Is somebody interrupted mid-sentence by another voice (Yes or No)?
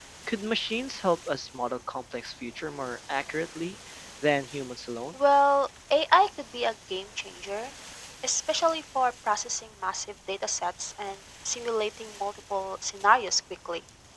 No